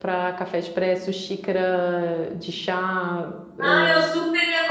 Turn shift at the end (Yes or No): Yes